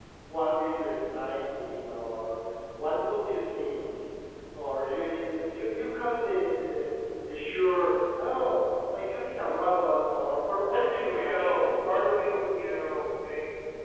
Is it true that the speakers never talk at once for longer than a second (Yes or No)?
No